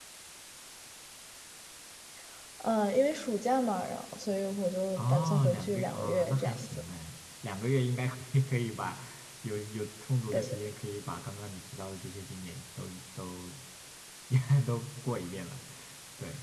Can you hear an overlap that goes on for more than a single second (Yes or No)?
Yes